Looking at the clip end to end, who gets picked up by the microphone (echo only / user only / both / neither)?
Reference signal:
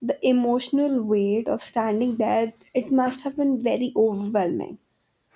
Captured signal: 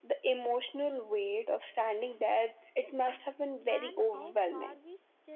both